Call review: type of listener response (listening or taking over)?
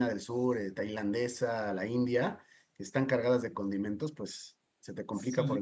taking over